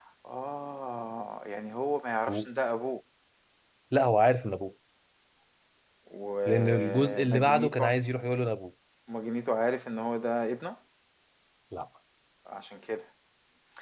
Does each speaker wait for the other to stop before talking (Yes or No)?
No